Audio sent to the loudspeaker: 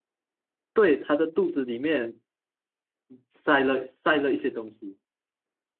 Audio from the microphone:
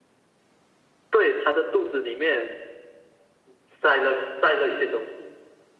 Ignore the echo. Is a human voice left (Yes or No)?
No